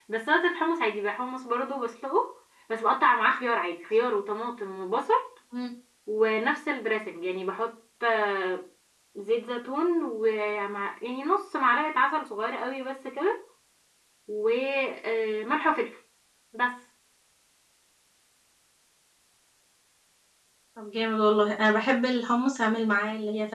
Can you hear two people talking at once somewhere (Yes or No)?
No